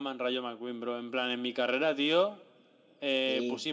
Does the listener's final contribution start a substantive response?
No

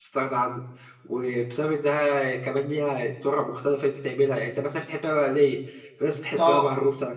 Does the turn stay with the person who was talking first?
Yes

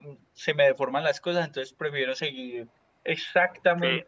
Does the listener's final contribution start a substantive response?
Yes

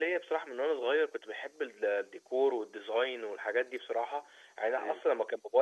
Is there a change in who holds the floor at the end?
No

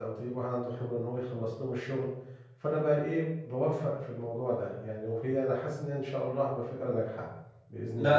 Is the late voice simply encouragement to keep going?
No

